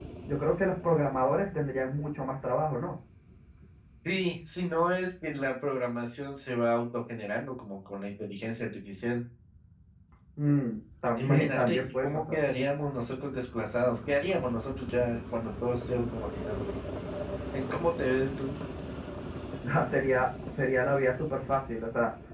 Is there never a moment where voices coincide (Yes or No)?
No